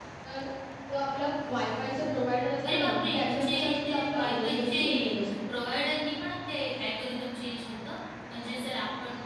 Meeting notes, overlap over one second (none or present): present